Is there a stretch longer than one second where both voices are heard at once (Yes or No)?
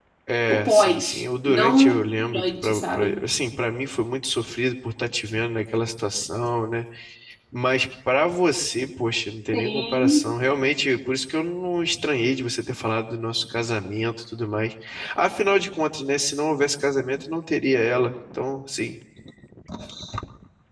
Yes